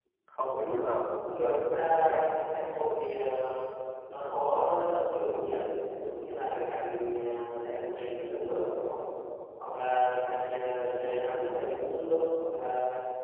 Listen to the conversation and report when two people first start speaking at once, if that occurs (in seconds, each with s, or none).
0.6 s